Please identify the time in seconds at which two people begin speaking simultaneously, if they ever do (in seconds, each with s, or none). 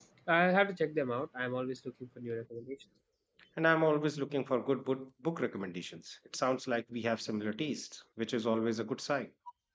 none